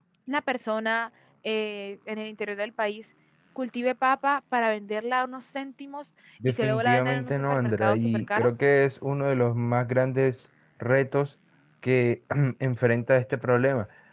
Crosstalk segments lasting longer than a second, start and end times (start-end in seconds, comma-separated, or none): 6.6-8.5